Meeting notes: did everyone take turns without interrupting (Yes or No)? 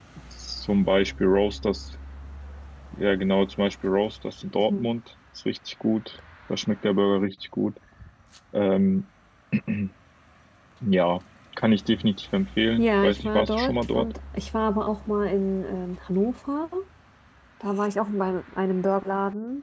No